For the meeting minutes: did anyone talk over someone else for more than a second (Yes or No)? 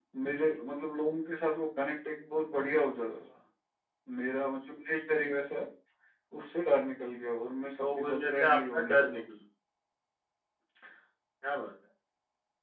Yes